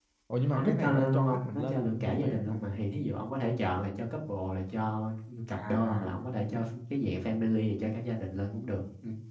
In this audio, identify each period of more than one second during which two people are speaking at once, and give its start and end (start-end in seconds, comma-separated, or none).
0.5-2.6